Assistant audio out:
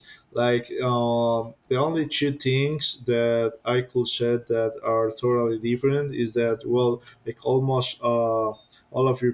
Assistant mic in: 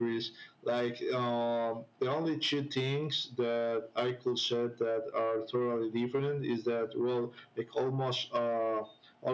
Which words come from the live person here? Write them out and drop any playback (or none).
none